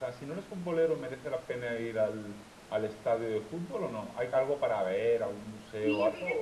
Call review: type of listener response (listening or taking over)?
taking over